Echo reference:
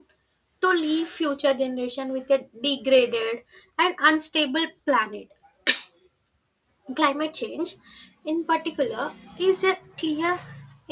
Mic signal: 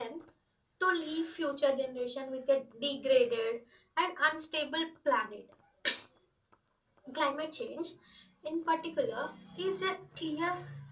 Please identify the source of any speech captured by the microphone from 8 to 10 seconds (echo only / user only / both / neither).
echo only